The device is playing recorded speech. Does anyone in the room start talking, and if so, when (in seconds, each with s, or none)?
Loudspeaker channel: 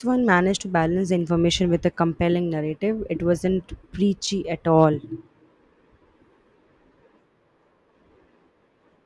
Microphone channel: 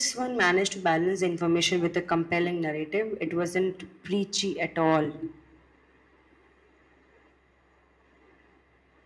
none